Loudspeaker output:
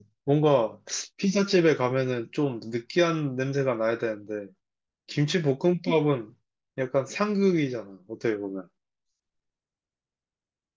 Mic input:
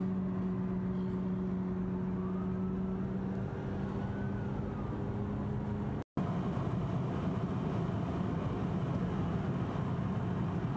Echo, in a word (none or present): none